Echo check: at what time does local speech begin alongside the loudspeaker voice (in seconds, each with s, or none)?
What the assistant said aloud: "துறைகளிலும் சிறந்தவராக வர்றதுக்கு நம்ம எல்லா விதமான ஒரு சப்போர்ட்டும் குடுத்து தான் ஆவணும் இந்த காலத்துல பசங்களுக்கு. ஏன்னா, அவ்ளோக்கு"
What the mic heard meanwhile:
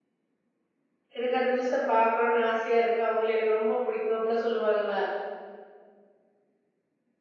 1.2 s